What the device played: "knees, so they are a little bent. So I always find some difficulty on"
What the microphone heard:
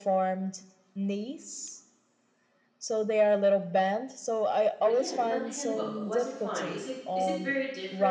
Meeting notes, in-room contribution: present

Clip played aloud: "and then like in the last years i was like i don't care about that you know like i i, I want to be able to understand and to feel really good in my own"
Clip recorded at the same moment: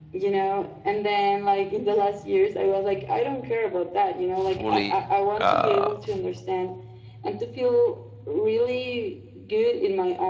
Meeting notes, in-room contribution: present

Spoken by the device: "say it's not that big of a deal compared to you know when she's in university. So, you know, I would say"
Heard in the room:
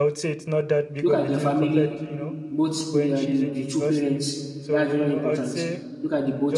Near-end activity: present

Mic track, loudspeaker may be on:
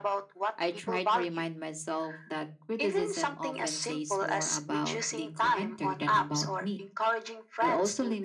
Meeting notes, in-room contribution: none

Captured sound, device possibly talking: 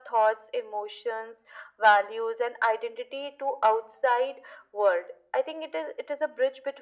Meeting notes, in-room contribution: none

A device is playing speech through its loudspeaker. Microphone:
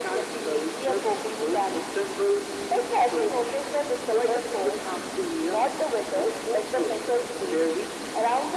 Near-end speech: none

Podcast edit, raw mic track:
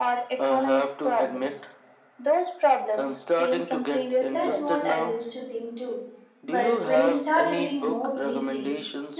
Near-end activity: present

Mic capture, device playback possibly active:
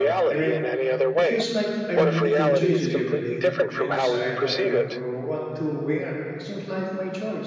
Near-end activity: present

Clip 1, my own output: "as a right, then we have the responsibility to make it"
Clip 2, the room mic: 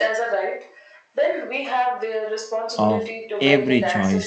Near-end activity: present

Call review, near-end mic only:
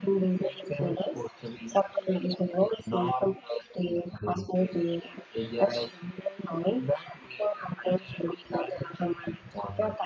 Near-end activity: none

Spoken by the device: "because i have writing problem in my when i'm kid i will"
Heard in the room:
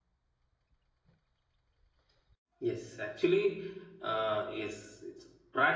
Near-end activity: present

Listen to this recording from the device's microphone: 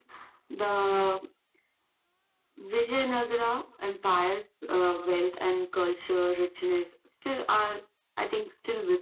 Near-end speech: none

